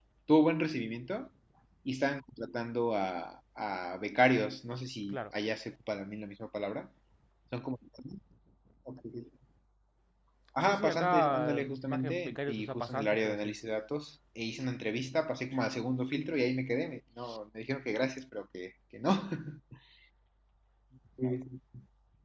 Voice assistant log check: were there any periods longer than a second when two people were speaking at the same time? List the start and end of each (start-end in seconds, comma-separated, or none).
10.6-13.6